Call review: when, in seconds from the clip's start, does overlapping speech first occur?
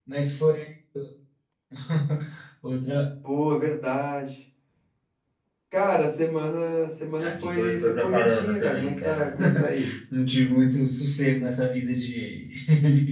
7.2 s

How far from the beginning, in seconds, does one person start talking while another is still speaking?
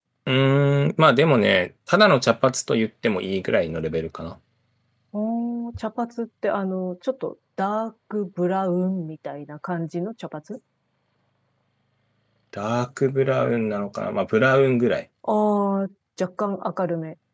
none

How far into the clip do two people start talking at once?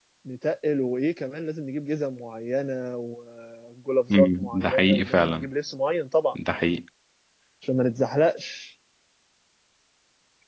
4.1 s

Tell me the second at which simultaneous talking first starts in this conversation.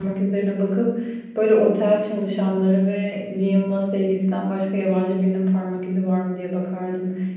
none

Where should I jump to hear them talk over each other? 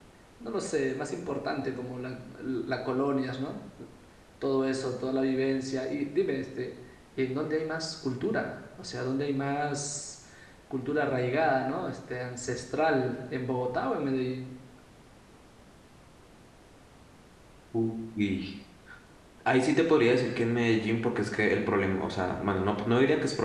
none

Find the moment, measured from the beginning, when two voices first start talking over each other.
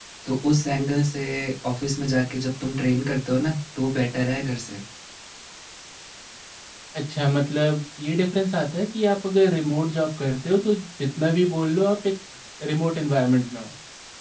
none

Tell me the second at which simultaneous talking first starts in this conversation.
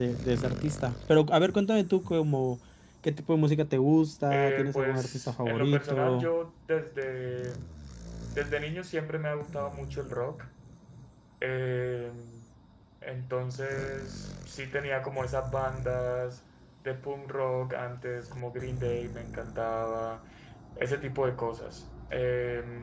4.3 s

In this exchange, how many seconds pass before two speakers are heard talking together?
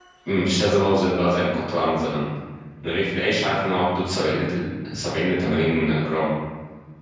none

